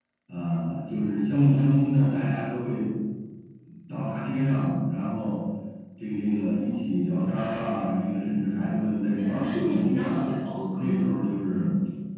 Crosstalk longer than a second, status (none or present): present